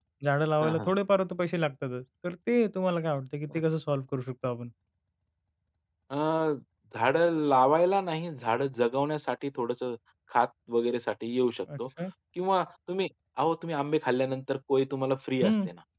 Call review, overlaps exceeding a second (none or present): none